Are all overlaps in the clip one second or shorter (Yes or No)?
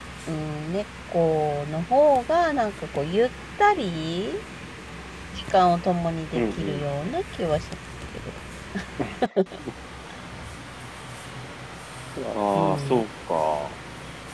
Yes